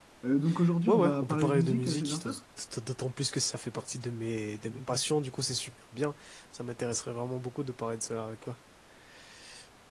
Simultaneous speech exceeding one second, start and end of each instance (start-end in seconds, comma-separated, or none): 0.9-2.3